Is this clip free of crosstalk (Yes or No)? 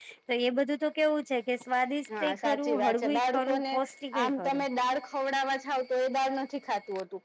No